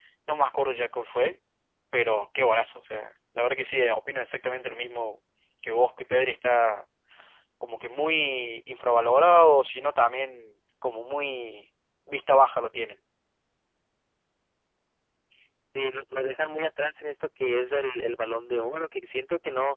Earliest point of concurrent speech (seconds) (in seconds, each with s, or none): none